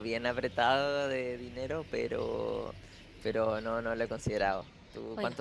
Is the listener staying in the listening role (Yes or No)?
No